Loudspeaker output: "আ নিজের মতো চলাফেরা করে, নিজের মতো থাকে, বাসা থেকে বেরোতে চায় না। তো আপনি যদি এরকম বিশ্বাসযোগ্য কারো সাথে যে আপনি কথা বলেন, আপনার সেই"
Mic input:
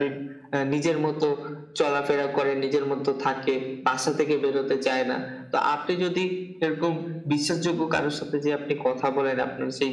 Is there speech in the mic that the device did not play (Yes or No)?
No